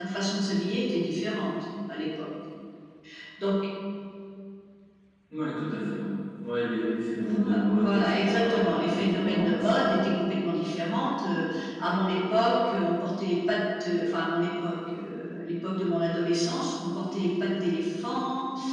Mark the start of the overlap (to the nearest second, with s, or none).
7 s